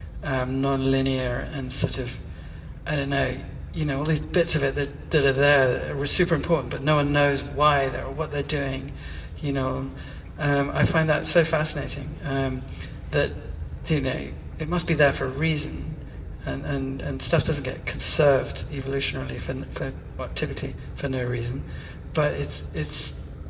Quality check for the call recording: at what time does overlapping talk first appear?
none

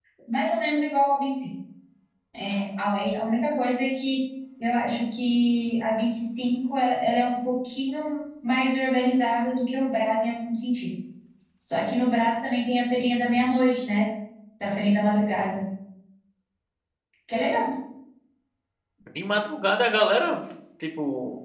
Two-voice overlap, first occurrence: none

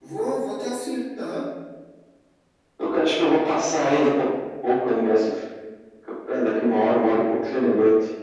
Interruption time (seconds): none

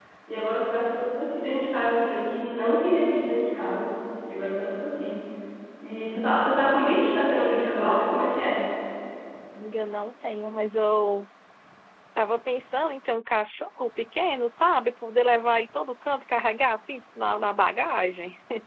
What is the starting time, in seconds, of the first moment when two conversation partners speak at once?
none

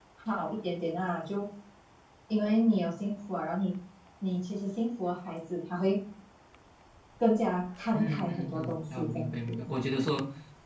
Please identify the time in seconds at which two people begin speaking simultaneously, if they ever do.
8 s

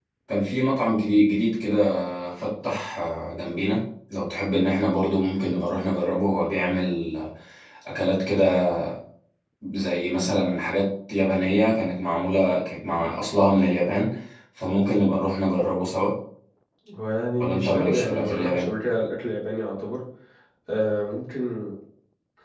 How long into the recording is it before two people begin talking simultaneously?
17 s

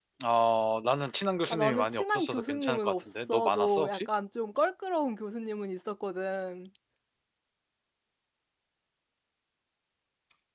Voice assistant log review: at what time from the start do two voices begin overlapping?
2 s

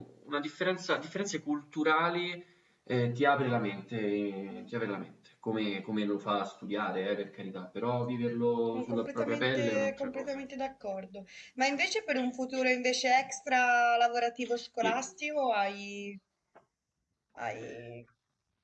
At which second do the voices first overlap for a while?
9 s

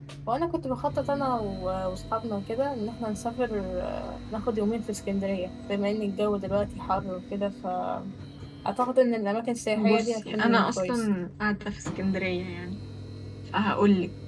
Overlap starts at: 10 s

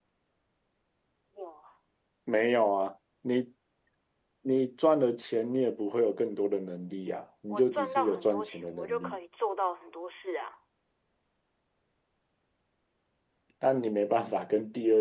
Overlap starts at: 7 s

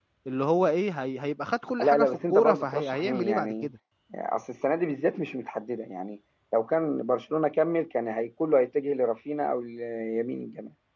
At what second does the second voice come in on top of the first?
2 s

